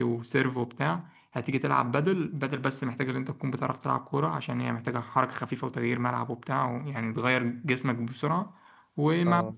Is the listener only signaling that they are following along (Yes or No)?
Yes